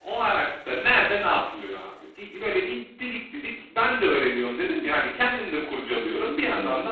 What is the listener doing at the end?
listening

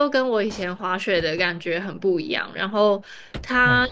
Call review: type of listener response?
listening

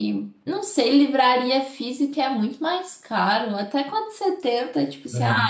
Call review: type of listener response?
listening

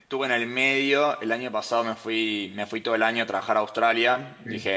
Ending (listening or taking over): listening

